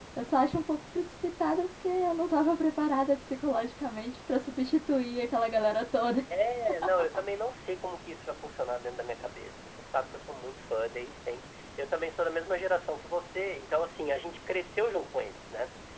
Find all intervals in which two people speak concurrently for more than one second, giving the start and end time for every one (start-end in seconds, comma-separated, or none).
none